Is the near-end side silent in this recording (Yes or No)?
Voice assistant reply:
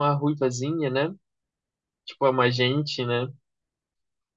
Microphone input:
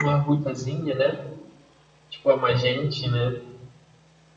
Yes